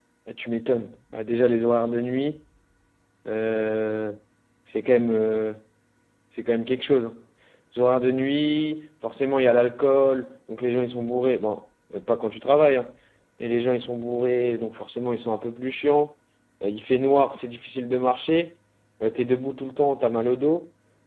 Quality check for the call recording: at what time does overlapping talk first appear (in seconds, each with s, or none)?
none